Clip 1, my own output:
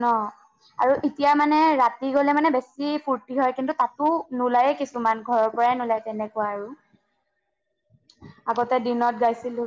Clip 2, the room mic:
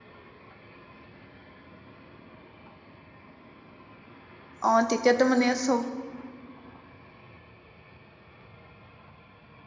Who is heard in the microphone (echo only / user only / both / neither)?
user only